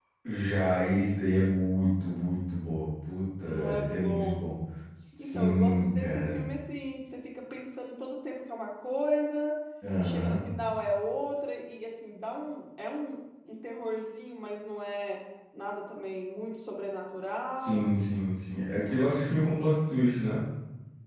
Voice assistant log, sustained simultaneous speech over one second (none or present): present